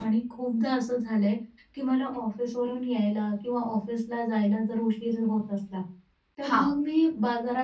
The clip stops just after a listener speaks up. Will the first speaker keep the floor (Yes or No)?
Yes